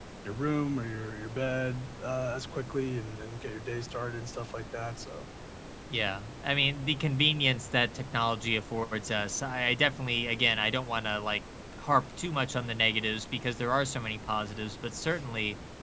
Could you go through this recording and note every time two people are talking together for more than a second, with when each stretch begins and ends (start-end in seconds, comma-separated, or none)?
none